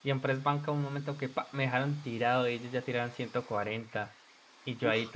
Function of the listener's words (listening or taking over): listening